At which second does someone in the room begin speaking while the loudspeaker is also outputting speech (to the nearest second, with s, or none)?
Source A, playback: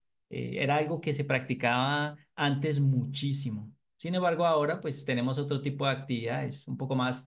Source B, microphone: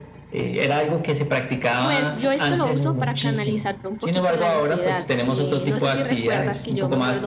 2 s